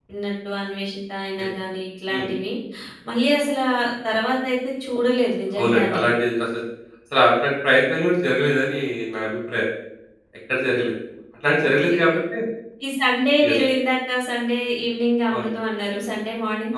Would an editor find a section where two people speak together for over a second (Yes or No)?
No